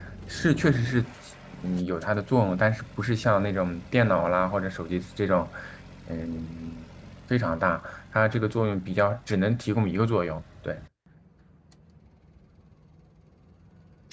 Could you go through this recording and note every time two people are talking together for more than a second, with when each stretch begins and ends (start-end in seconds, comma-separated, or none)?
none